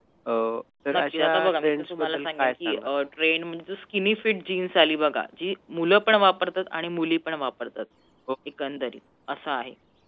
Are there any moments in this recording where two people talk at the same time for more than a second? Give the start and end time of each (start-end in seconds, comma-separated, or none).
0.9-2.7